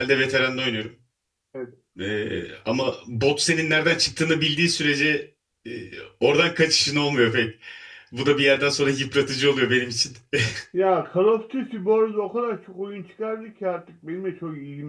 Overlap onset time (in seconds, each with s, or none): none